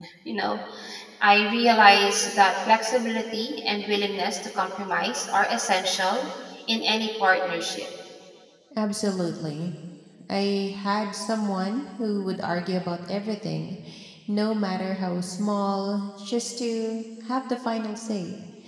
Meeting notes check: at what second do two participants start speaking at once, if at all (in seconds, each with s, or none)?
none